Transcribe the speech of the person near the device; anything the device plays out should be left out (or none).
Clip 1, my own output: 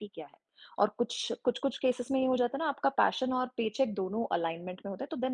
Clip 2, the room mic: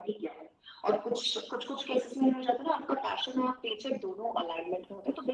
none